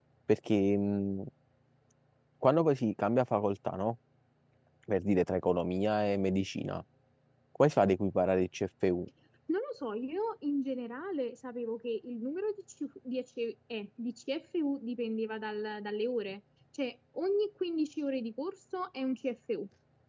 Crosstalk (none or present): none